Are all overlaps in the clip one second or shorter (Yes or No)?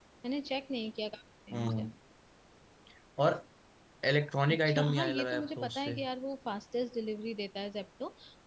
No